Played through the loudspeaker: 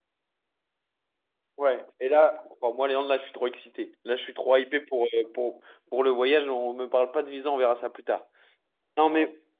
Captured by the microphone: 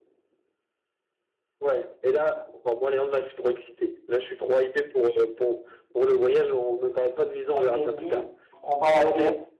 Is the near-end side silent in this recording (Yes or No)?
No